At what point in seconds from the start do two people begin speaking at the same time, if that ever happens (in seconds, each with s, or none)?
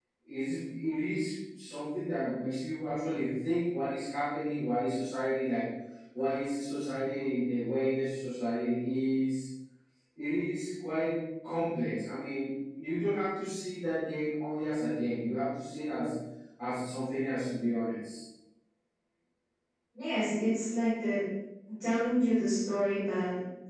none